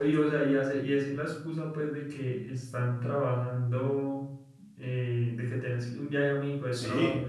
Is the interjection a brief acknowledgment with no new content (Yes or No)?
No